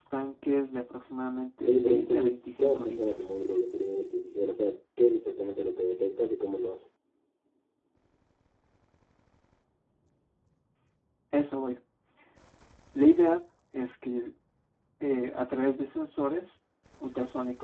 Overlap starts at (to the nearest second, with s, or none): 2 s